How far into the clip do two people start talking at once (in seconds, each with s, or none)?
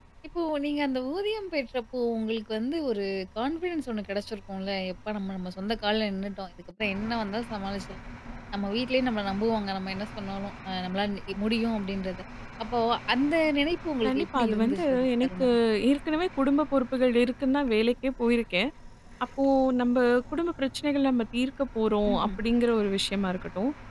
14.1 s